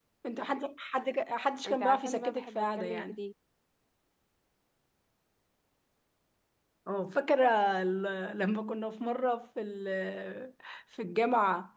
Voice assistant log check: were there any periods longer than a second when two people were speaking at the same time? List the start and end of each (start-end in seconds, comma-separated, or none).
1.6-3.2